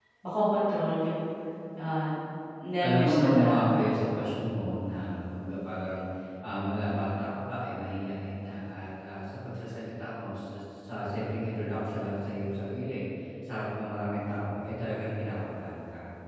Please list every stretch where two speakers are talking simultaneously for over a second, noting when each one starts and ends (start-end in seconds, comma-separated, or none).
2.8-4.3